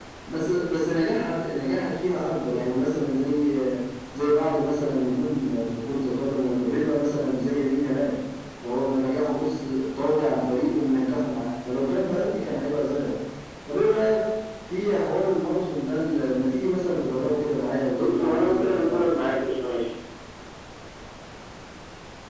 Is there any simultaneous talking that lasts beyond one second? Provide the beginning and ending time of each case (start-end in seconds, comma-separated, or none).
17.9-19.2